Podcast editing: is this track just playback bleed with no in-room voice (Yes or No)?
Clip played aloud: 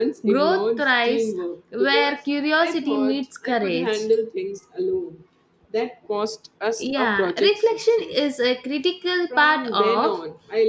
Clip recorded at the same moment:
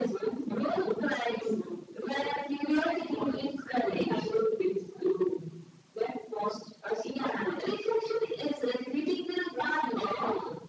Yes